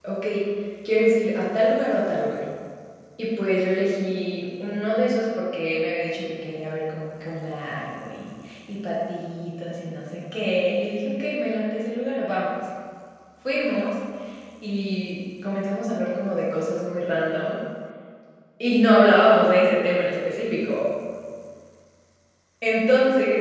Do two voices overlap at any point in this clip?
No

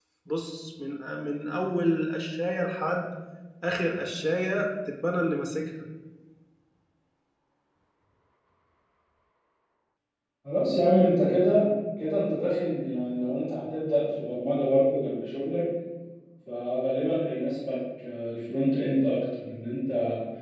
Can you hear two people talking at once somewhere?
No

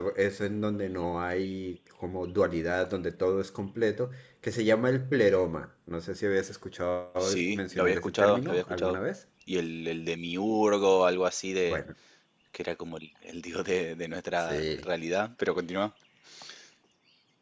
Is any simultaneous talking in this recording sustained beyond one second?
Yes, from 7.2 s

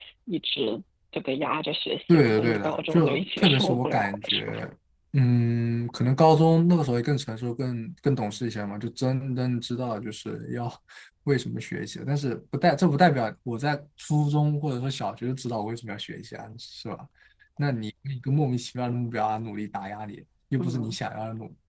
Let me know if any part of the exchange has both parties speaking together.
Yes, from 2.1 s

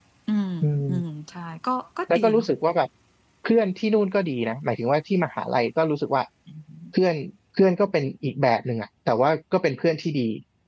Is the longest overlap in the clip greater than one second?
No

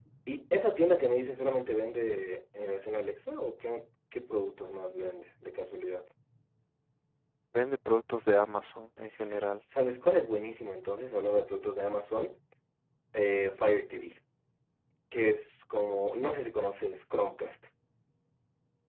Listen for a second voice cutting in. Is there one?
No

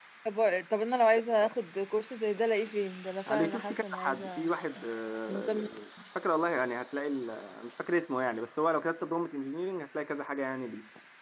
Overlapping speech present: Yes, from 3.3 s

